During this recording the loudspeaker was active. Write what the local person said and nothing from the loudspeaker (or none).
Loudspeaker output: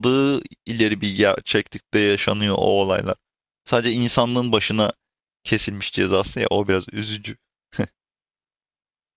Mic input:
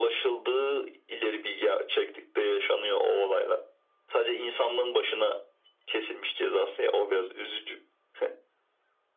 none